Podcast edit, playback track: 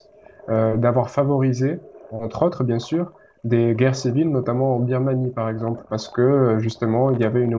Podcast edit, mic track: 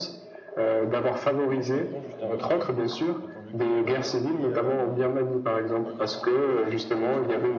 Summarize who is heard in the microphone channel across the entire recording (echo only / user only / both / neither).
both